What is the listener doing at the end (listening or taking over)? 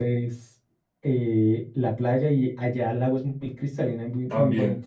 taking over